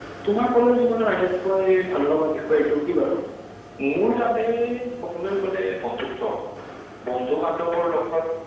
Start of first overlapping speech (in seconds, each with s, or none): none